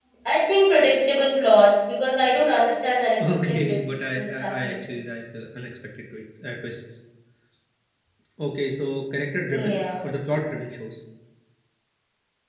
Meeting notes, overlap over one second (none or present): present